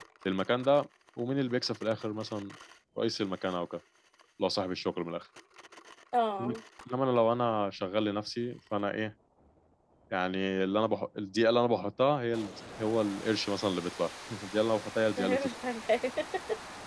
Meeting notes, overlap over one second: none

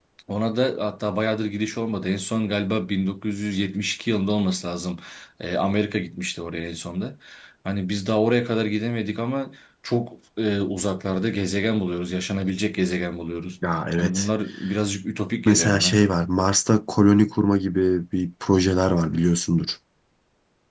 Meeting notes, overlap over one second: none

